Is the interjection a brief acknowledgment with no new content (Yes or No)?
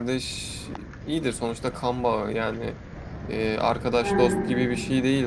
Yes